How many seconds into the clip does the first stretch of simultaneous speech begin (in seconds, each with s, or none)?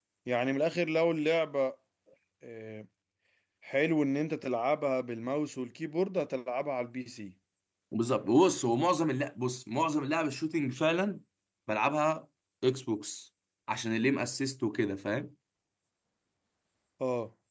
none